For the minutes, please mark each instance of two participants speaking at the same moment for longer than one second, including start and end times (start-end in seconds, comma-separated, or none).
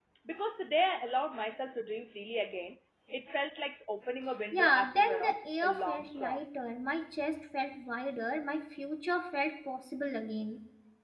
4.5-6.4